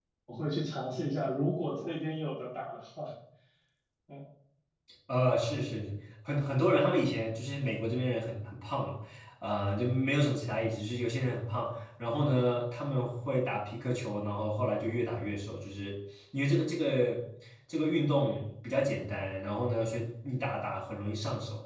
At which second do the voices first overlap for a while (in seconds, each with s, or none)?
none